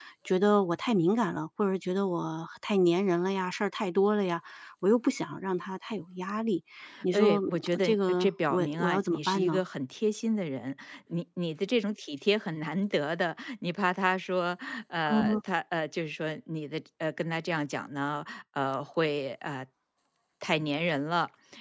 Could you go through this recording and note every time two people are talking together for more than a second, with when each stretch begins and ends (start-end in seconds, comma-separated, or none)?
7.1-9.6